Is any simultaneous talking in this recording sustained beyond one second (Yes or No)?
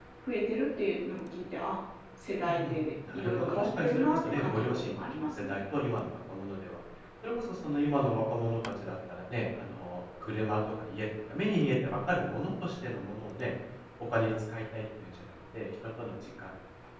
Yes